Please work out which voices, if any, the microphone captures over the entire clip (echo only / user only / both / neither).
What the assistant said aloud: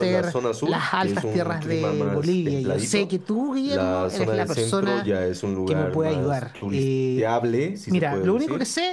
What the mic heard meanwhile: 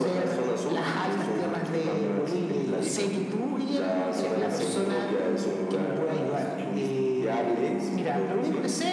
echo only